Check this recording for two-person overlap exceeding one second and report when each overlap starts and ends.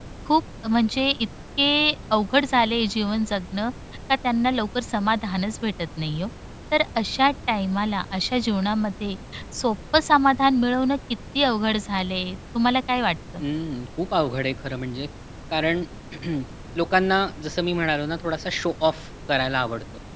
none

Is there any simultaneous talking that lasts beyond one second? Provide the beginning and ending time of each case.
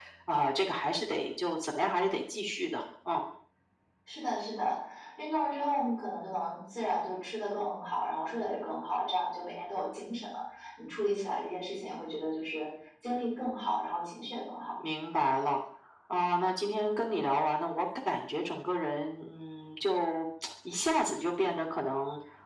none

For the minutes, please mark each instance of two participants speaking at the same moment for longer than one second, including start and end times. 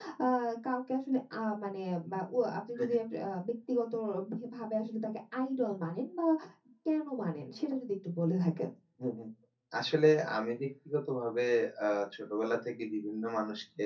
none

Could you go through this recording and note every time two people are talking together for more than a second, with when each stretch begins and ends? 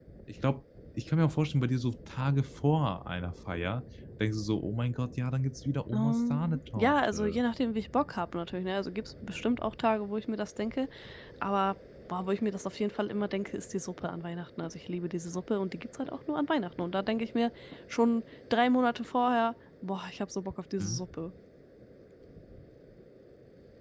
5.9-7.4

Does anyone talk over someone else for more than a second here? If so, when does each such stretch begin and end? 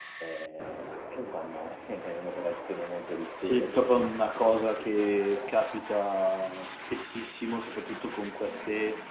3.4-5.6

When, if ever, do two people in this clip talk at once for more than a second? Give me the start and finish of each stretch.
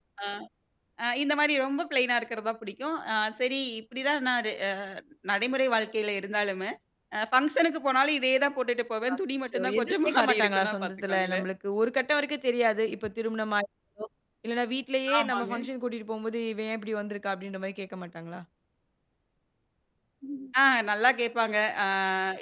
9.5-11.5

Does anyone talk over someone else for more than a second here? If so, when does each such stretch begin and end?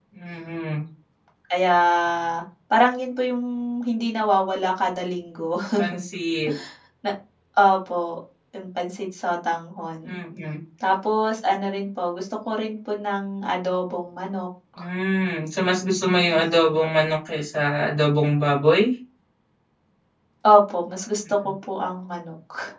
none

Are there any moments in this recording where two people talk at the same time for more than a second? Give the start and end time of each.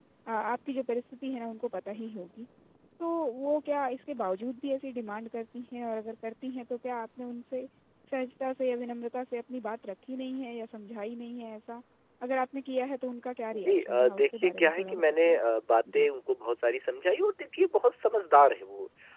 13.5-15.4

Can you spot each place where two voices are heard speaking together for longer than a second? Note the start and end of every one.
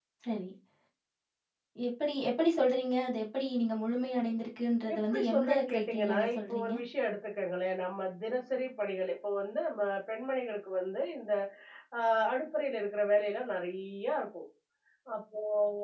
4.9-6.7

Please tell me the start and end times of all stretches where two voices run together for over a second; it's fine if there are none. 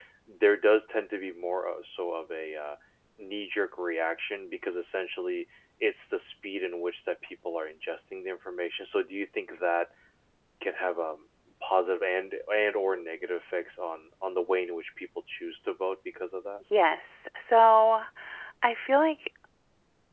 none

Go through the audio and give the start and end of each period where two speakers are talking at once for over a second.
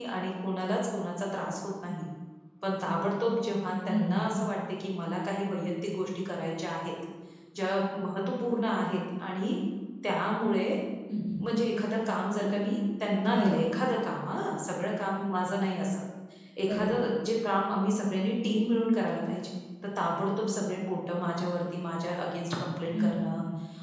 none

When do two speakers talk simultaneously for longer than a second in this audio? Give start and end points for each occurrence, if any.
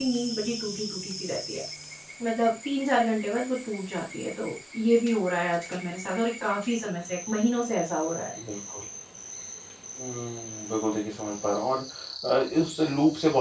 none

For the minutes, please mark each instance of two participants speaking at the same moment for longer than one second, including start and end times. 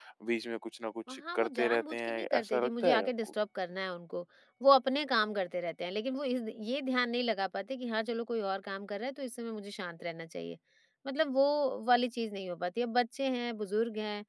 1.1-3.3

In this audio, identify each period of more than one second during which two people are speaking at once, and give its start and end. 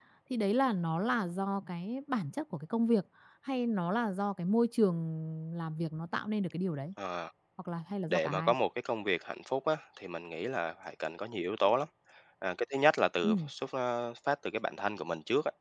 none

